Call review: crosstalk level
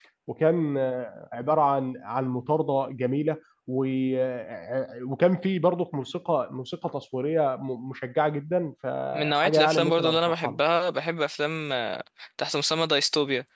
present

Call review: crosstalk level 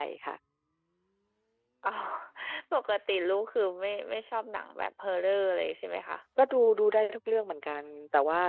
none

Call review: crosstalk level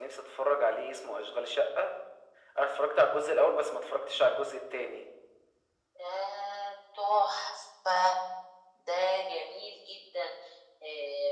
none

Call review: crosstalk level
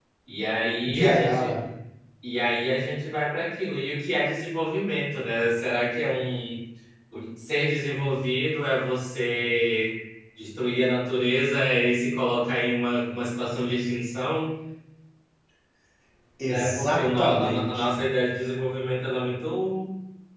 present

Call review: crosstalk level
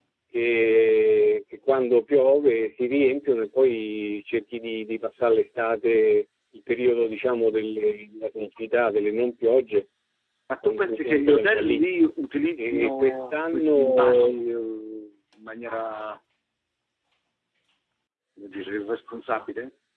present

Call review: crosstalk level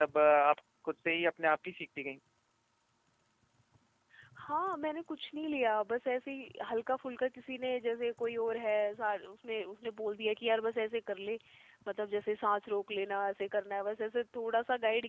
none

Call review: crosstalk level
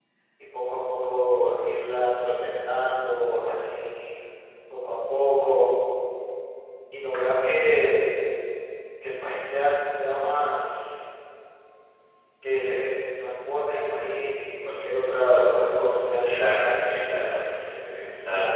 present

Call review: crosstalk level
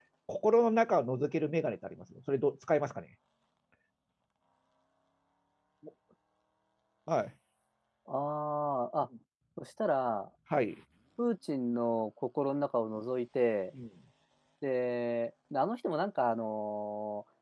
none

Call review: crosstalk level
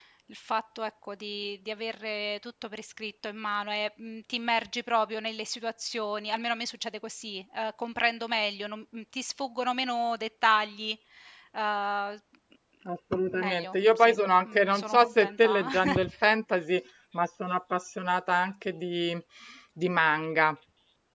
present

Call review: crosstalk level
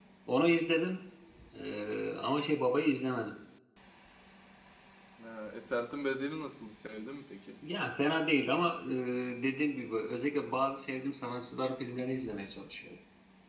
none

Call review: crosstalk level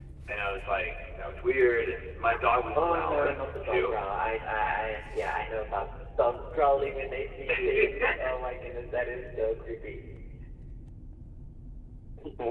present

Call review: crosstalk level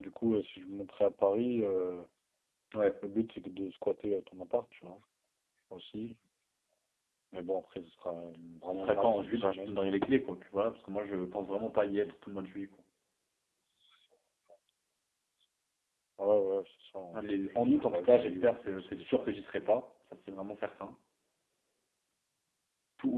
present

